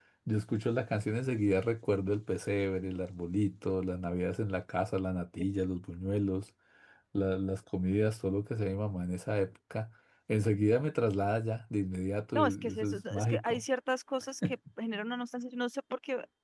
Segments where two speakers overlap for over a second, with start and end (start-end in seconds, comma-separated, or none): 12.3-13.6